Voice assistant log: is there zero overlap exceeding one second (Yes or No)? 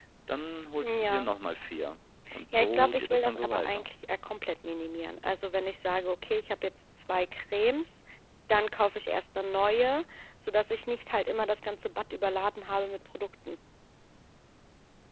No